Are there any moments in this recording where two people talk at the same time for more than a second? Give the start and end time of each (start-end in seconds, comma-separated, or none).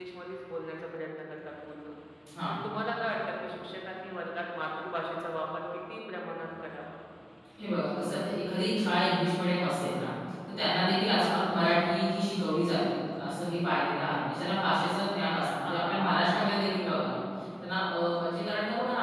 15.4-16.9